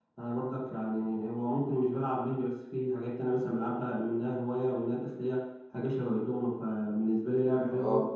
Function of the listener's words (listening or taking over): taking over